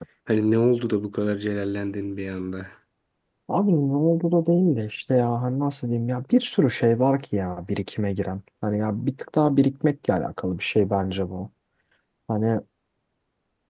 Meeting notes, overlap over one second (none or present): none